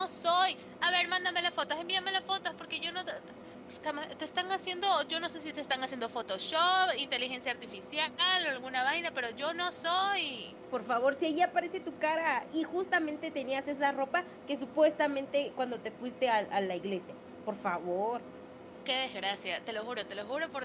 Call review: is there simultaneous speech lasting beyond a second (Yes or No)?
No